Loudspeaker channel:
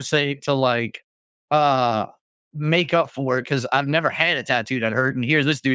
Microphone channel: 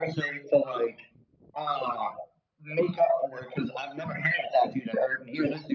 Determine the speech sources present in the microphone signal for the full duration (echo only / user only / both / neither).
echo only